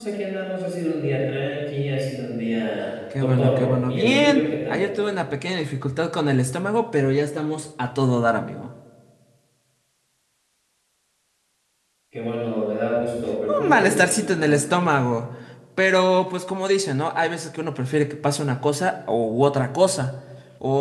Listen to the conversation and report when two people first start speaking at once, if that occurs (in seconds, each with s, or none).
3.2 s